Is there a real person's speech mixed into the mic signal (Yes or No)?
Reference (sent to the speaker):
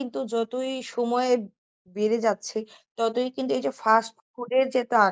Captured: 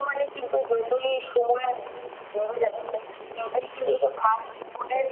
No